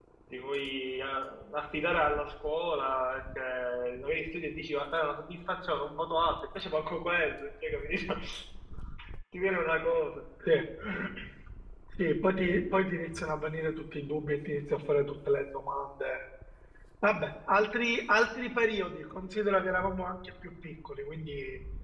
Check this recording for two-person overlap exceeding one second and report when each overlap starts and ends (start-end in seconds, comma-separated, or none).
none